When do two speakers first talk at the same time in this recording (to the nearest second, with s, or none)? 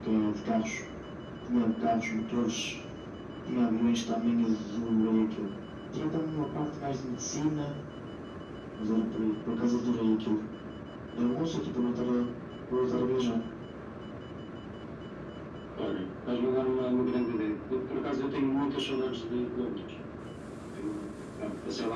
none